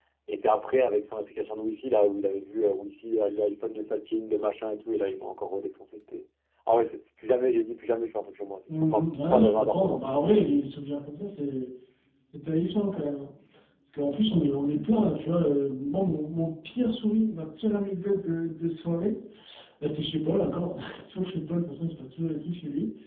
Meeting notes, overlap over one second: present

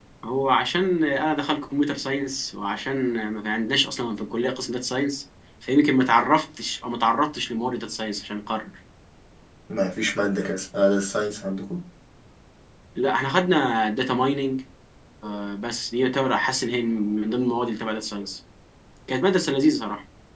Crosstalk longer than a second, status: none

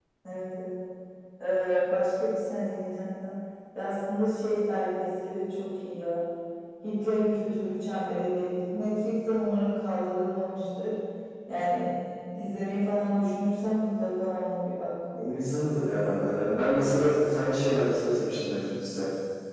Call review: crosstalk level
none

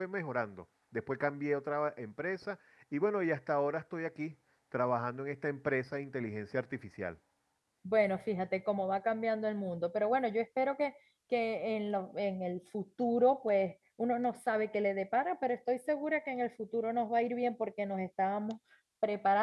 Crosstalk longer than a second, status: none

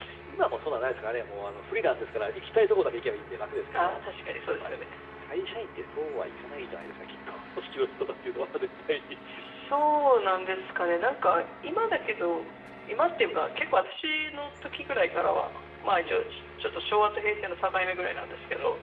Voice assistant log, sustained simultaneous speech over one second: none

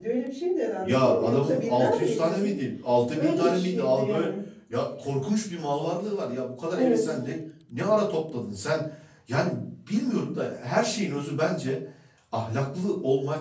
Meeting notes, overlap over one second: present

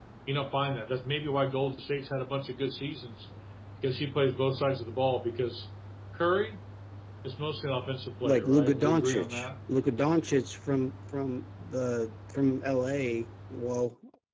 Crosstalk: present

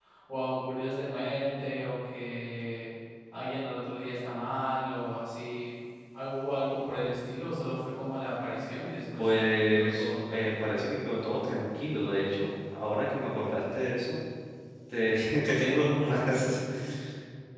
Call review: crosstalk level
present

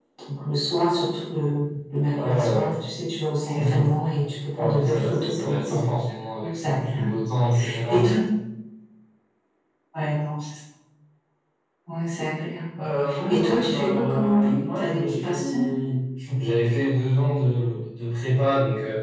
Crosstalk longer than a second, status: present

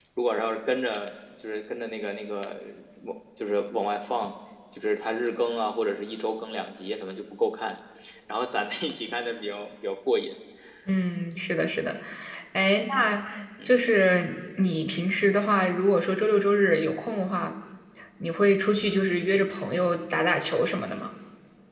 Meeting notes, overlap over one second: none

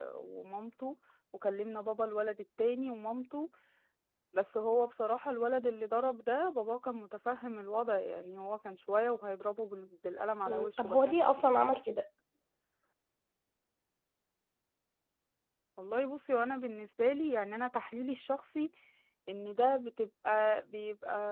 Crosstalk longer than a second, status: present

